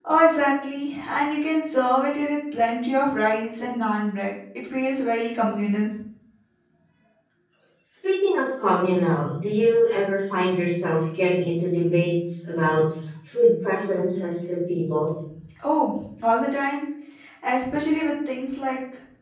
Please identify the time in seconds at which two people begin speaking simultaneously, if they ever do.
none

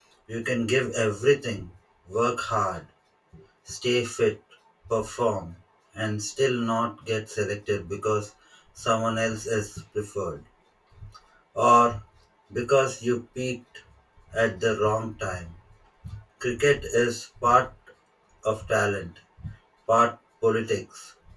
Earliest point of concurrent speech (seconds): none

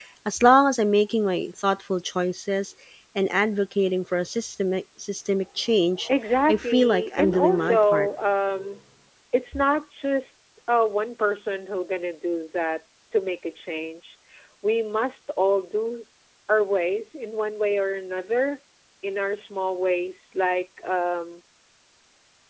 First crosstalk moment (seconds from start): 6.5 s

